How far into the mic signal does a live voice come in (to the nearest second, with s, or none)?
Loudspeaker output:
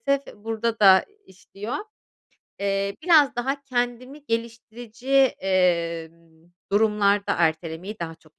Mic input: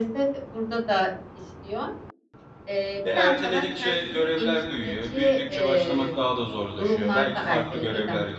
3 s